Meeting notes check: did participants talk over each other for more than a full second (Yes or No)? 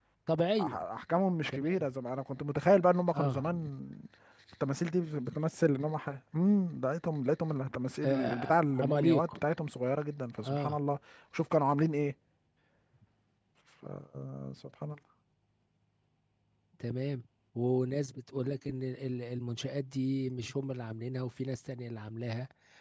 Yes